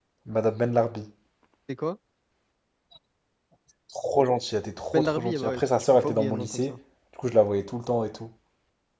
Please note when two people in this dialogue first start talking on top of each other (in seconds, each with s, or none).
4.9 s